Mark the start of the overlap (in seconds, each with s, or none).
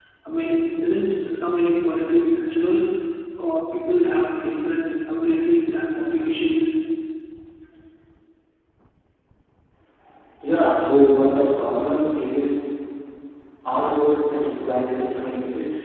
none